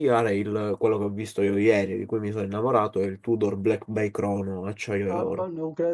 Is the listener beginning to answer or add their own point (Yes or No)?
Yes